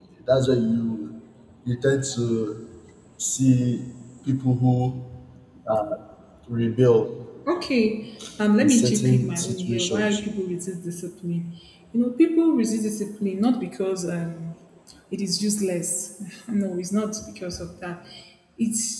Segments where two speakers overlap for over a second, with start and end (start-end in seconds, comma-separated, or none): 8.6-10.2